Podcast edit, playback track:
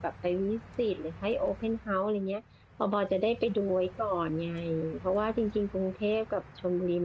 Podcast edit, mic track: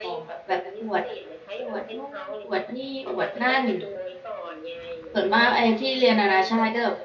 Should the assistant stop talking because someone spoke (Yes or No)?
Yes